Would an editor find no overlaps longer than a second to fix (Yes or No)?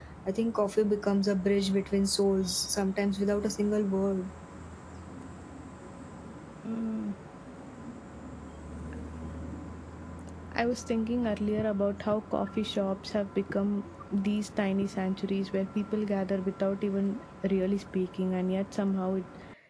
Yes